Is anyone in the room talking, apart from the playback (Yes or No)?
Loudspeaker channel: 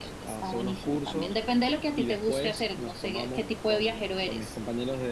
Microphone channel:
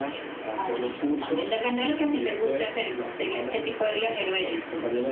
No